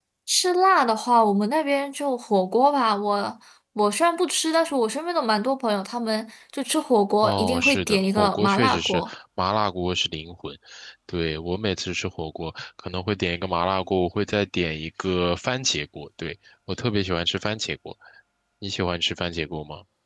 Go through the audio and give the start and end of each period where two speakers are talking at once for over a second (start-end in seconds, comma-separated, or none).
7.2-9.1